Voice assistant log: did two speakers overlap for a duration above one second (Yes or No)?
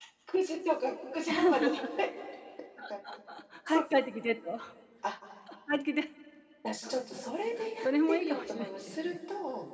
Yes